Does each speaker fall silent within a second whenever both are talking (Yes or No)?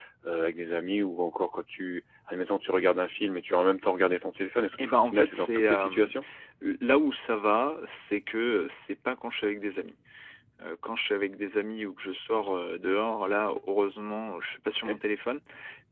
No